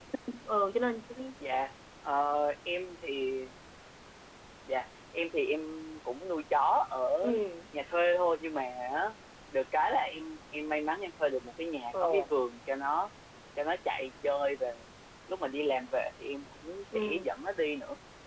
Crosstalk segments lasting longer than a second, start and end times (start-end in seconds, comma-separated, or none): none